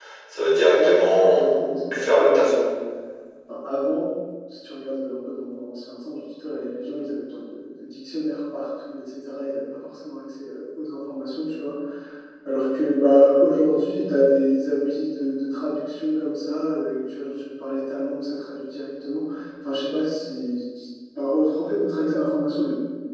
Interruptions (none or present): present